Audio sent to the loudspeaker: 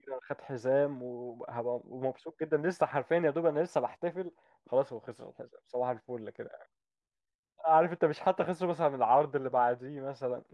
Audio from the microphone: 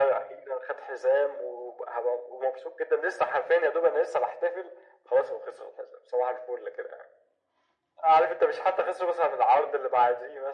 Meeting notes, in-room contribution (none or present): none